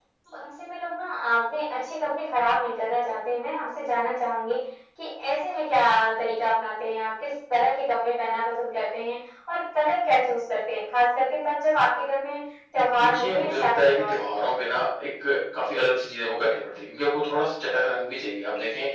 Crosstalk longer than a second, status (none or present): present